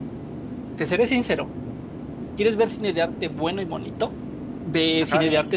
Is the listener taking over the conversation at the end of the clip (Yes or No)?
No